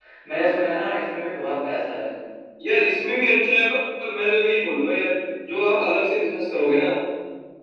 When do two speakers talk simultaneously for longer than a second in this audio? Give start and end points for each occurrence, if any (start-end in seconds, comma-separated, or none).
none